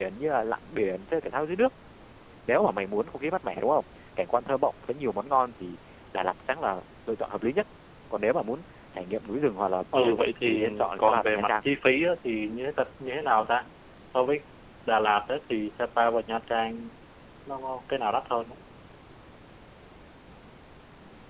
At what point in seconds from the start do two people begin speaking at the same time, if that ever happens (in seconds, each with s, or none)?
9.9 s